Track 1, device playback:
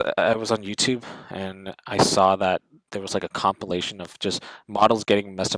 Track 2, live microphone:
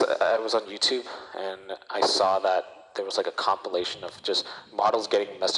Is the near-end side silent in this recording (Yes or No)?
Yes